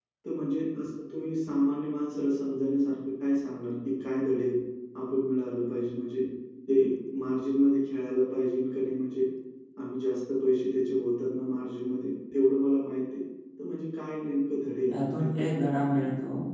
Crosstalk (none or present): present